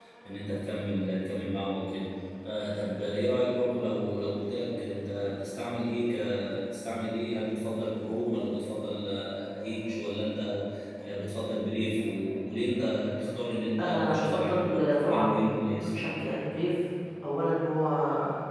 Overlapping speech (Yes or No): Yes